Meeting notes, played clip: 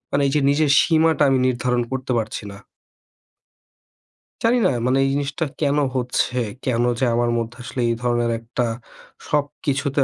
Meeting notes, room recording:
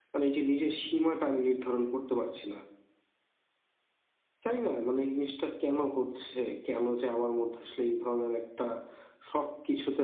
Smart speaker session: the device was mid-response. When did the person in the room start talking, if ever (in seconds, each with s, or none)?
none